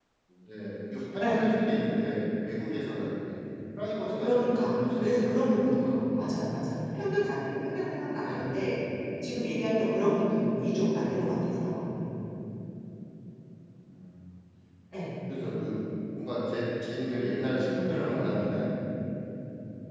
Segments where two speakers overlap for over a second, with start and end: 4.2-6.0

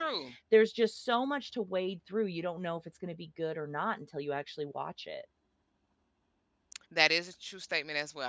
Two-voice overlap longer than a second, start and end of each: none

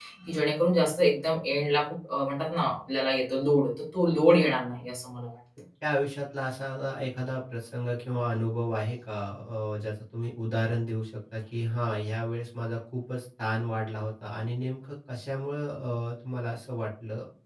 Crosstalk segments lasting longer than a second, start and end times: none

